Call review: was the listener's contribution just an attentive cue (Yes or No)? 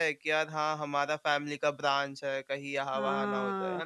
No